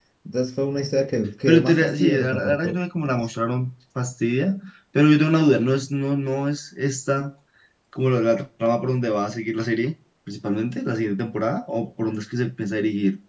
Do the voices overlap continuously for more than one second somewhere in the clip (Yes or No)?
Yes